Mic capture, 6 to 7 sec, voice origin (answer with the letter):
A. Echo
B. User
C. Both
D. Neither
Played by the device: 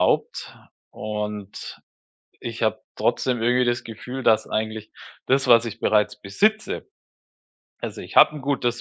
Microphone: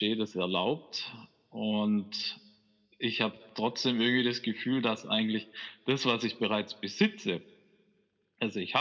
A